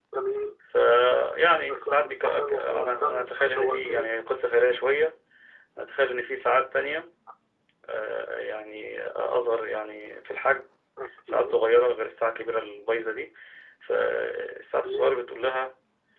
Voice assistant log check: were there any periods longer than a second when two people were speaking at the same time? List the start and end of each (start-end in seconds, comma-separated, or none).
1.7-4.1